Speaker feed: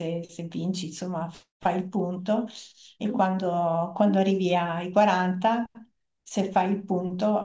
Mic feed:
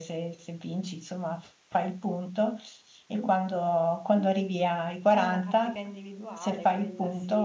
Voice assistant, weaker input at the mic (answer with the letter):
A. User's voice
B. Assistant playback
A